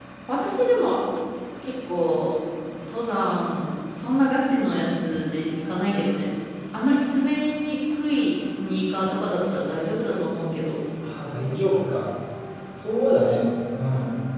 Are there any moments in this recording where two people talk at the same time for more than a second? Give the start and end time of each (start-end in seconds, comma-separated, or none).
none